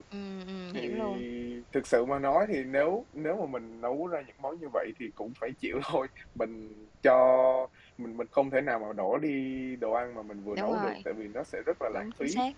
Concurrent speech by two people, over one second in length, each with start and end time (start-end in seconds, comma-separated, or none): none